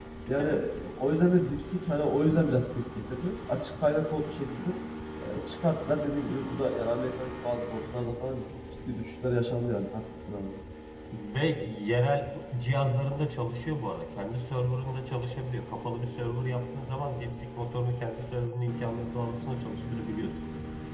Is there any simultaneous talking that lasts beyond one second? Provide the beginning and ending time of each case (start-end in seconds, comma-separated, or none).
none